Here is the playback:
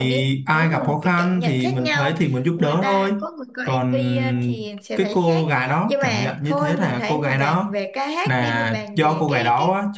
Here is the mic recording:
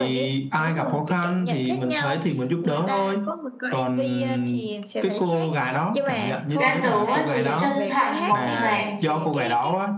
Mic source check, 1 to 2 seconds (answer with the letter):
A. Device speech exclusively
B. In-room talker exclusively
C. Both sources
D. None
A